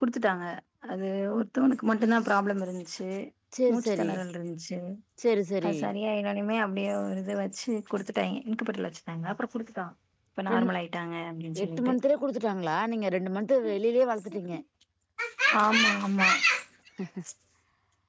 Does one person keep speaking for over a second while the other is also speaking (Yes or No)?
No